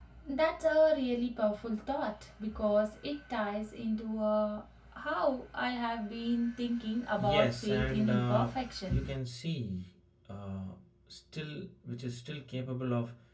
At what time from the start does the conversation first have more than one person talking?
7.2 s

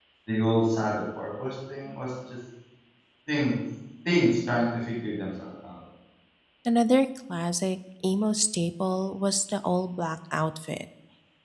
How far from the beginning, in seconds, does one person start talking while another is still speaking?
none

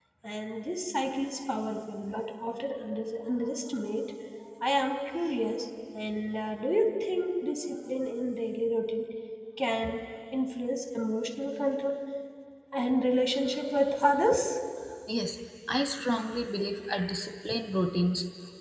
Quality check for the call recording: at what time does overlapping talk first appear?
none

